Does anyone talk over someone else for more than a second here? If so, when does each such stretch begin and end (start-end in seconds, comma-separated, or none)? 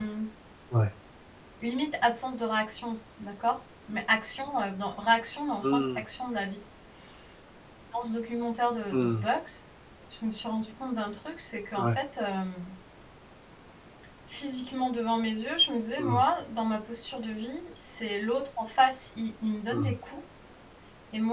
none